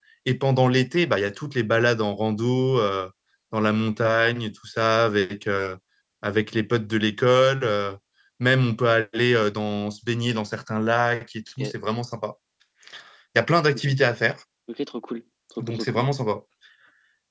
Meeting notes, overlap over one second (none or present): none